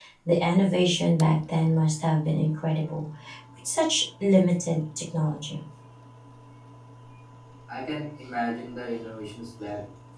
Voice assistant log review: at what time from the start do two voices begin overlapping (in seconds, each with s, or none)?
none